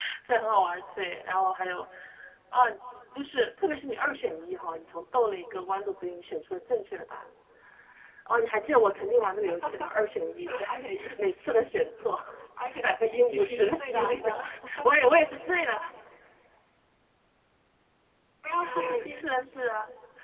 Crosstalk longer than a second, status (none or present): present